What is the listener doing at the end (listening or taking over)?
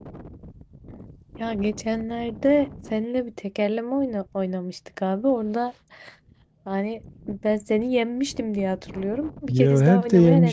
taking over